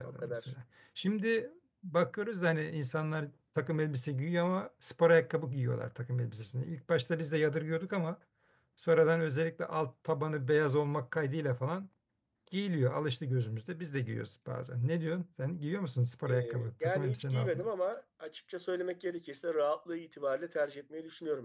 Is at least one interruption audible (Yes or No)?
Yes